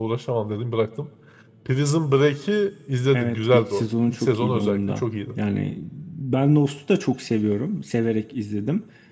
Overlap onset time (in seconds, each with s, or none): 3.1 s